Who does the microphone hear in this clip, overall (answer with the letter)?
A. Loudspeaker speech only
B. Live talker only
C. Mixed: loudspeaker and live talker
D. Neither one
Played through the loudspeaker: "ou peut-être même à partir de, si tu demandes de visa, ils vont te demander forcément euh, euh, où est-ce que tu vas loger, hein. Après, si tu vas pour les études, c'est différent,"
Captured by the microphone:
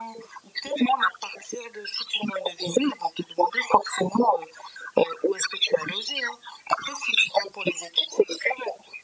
A